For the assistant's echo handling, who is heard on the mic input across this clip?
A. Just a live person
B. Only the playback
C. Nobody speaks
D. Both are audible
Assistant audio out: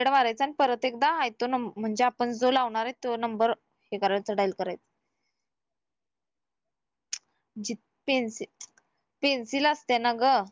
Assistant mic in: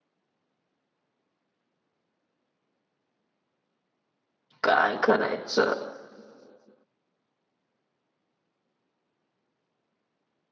A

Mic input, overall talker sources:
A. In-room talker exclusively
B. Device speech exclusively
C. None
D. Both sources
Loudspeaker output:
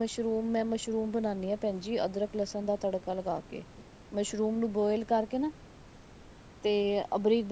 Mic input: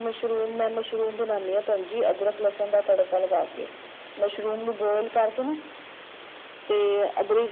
B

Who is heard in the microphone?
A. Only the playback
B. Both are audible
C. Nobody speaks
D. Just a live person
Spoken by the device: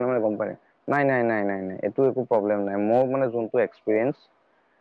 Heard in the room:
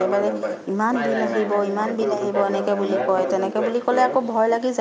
B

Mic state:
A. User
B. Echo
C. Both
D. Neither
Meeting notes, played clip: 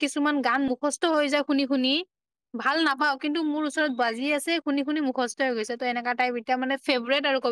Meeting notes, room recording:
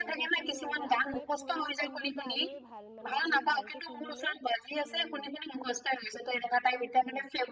C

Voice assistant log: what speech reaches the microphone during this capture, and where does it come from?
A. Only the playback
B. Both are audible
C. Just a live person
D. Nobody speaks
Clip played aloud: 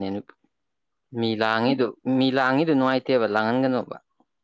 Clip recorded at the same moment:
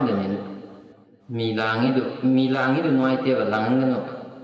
A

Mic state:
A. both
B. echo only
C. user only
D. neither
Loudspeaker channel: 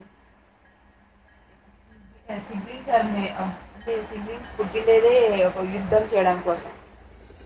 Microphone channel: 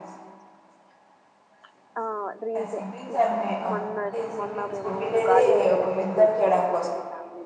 A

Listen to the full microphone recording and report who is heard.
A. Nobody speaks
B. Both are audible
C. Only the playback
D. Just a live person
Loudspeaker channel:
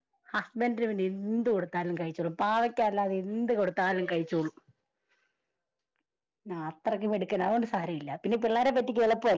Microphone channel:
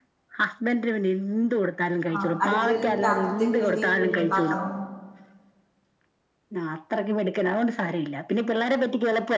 B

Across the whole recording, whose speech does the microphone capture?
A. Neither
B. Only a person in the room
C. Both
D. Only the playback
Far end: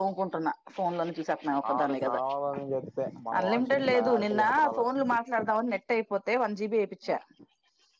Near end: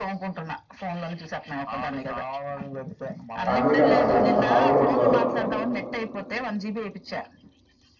C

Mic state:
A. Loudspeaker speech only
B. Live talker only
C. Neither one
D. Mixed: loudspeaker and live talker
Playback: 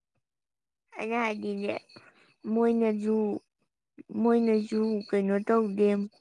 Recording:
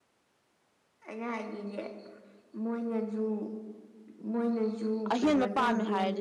D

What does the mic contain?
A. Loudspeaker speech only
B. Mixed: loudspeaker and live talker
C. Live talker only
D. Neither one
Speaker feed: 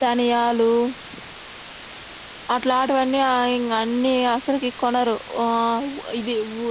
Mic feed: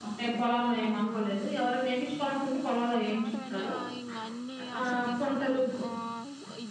B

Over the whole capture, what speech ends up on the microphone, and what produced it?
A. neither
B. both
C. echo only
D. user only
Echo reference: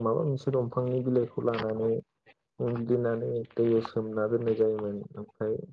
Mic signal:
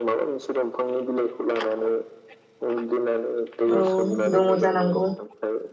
B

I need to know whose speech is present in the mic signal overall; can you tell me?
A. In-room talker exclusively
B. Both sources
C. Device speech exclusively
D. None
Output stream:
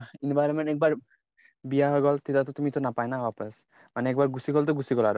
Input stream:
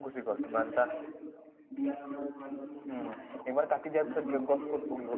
B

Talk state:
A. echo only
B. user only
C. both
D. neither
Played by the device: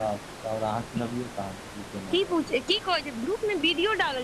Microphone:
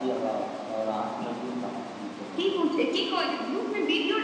A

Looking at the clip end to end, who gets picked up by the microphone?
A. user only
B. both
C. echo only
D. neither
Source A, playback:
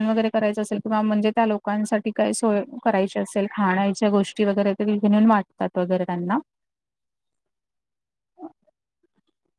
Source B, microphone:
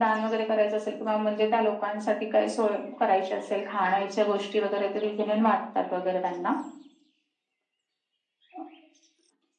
C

